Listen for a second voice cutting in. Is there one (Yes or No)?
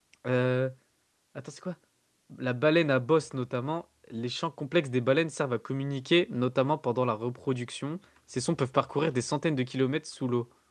No